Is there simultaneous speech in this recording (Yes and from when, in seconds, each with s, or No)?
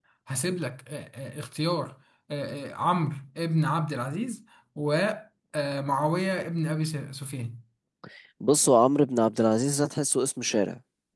No